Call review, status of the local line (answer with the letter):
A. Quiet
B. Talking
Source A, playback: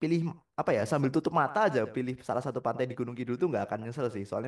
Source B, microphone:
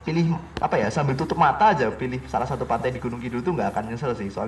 A